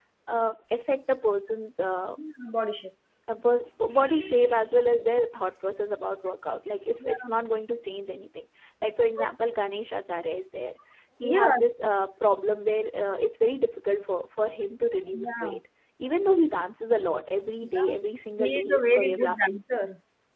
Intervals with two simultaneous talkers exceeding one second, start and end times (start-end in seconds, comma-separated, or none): 18.4-19.6